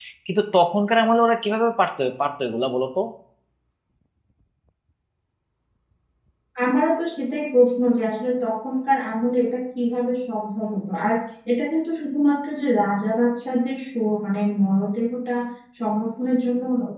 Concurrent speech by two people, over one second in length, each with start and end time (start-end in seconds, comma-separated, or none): none